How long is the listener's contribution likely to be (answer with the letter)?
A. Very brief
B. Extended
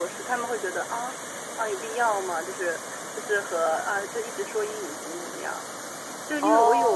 A